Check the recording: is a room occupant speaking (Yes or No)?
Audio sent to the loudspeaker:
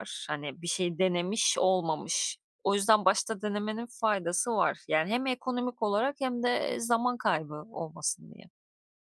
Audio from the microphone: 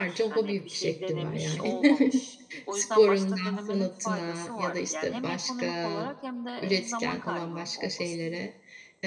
Yes